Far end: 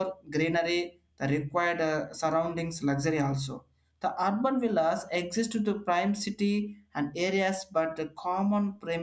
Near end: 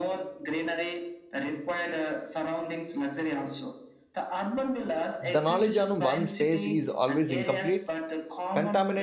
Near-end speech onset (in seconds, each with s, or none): 5.2 s